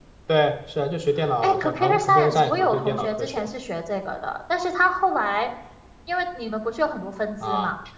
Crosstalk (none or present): present